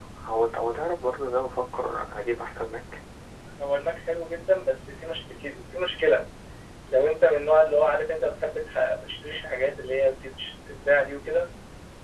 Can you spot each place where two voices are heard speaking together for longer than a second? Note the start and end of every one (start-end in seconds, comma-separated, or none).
none